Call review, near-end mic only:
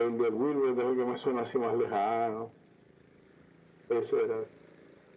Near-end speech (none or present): none